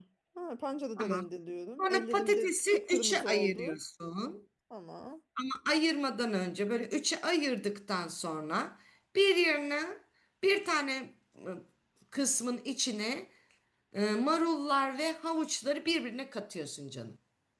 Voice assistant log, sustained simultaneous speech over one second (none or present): present